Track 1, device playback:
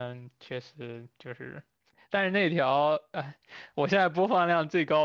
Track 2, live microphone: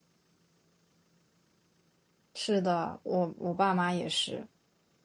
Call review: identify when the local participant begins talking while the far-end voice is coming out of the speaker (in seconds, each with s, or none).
2.3 s